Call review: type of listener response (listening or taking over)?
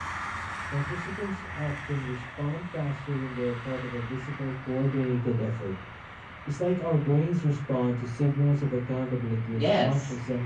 taking over